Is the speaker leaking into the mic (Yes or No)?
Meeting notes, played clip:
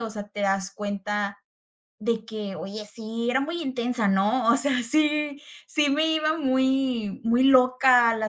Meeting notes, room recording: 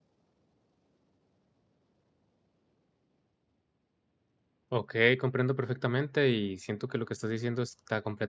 No